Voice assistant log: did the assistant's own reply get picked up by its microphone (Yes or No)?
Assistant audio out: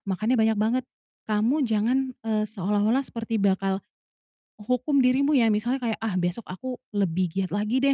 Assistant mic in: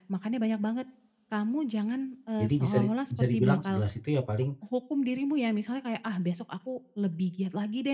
Yes